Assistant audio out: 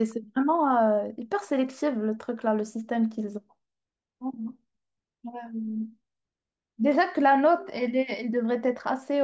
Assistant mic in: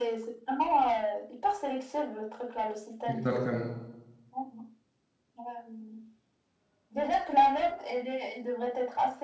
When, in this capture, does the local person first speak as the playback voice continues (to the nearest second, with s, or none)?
3 s